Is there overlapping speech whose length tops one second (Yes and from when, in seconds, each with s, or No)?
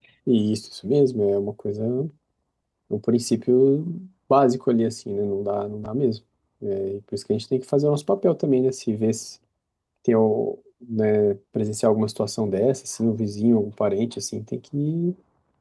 No